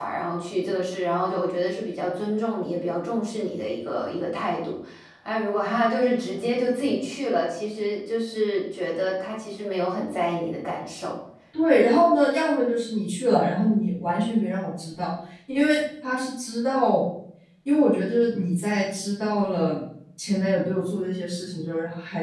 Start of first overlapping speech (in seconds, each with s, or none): none